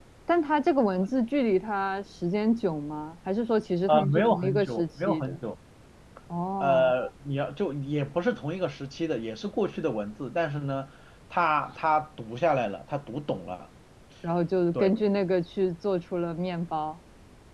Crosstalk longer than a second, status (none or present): present